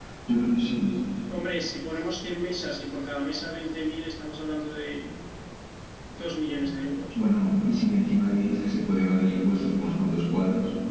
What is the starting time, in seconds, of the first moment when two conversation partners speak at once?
none

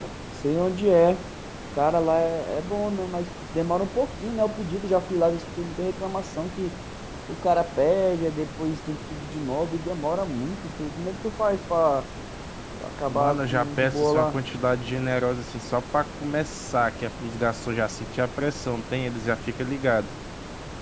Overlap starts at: 13 s

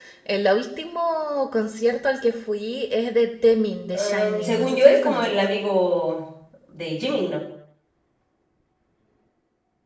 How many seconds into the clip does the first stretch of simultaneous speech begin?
4 s

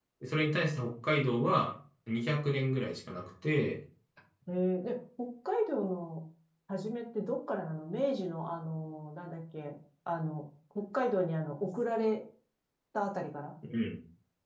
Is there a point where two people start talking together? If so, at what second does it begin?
none

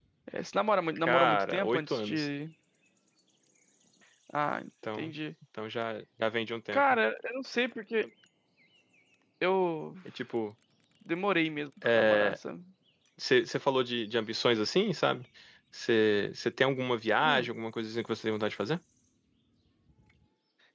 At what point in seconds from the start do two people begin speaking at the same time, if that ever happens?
1 s

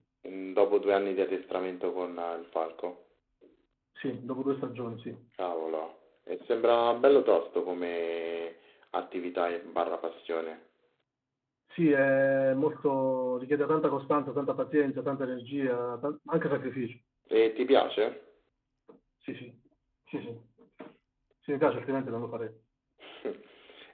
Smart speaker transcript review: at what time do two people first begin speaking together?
none

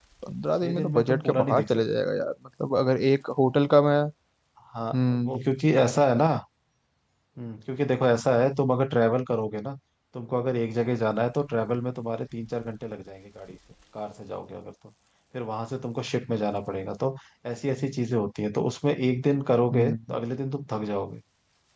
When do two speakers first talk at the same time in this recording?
1 s

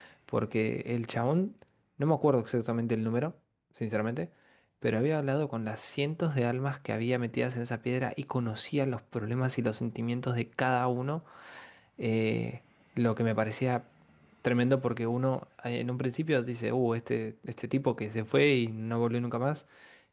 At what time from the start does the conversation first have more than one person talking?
none

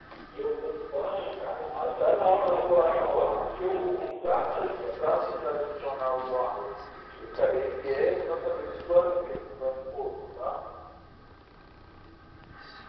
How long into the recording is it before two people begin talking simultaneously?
2 s

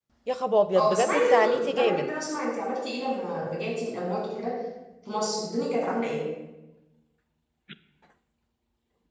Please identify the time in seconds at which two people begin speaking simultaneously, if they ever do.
1 s

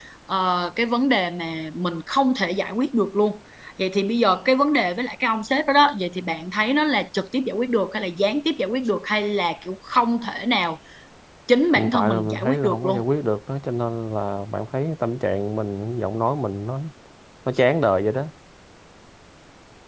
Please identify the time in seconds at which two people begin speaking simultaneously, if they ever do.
12 s

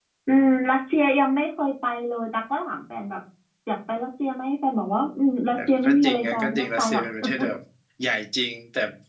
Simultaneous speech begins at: 6 s

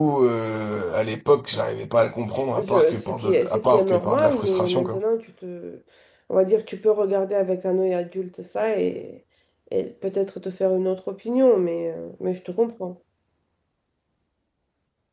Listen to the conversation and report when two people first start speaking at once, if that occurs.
3 s

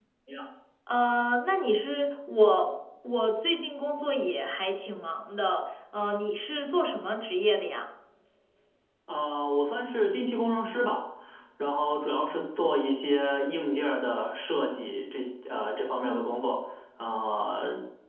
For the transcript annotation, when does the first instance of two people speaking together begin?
none

